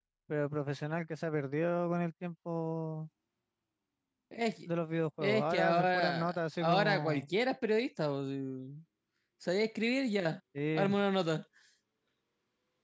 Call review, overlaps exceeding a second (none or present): present